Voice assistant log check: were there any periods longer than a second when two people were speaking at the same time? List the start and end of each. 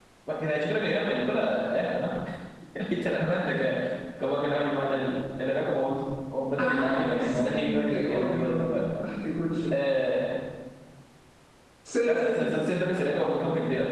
6.6-8.8

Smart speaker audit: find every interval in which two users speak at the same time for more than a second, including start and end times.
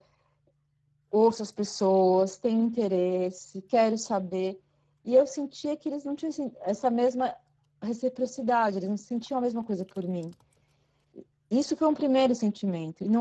none

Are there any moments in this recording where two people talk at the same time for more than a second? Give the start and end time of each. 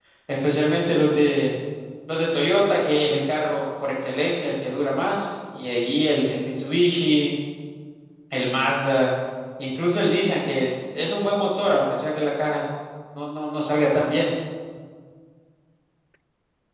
none

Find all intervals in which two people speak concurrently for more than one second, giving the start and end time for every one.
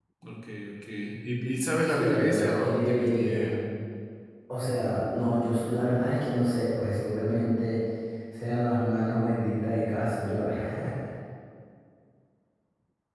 1.8-3.5

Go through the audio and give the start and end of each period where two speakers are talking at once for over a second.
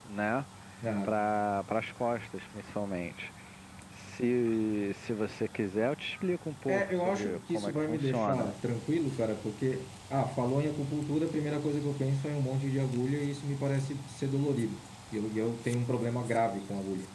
6.7-8.5

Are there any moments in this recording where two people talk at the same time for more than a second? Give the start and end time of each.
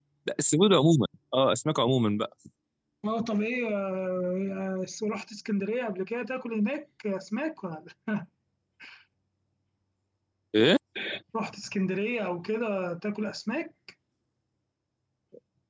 none

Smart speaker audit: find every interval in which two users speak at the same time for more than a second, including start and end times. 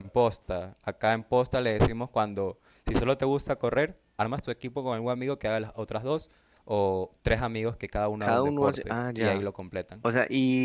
8.2-9.4

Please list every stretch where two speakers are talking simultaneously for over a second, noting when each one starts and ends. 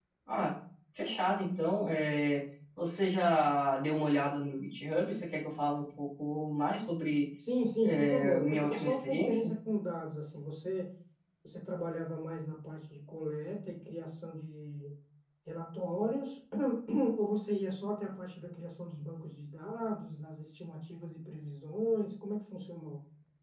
7.8-9.5

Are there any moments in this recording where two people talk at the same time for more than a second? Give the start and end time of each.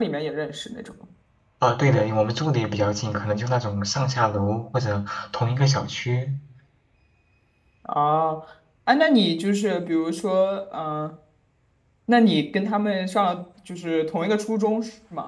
none

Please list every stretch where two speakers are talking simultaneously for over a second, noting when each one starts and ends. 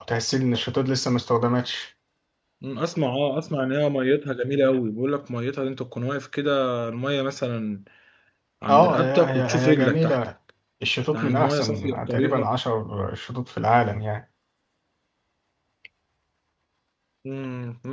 8.7-10.2, 11.1-12.5

